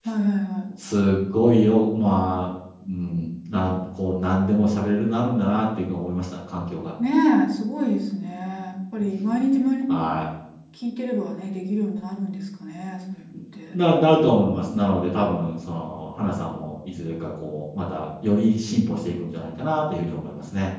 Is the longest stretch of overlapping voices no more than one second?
Yes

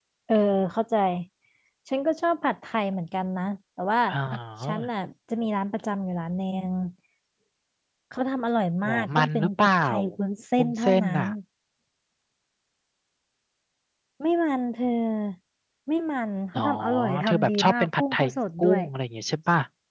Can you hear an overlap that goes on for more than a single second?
Yes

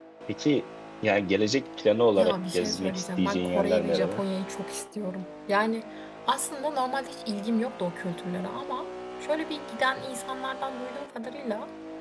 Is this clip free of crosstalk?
No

